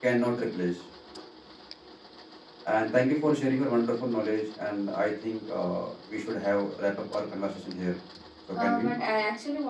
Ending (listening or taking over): taking over